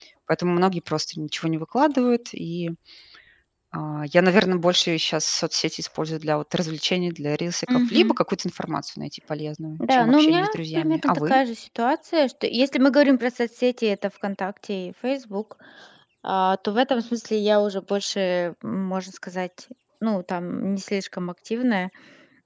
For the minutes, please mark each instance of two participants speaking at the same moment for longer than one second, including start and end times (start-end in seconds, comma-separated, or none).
9.8-11.3